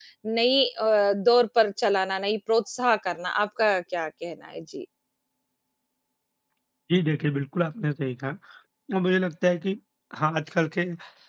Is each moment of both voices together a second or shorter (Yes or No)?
Yes